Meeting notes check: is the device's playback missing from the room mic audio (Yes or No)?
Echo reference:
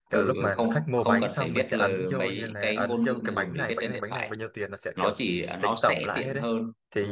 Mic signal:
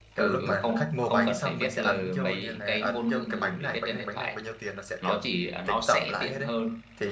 No